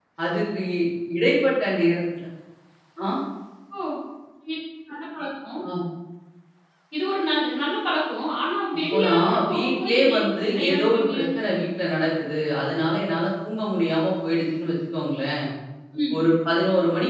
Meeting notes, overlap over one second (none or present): present